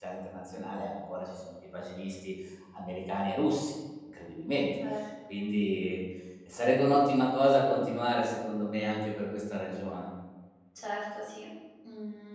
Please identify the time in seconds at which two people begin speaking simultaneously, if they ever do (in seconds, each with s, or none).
none